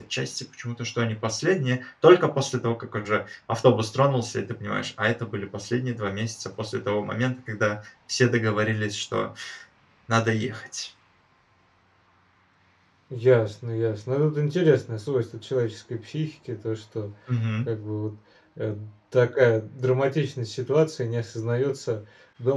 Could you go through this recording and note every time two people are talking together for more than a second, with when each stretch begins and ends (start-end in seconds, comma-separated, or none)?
none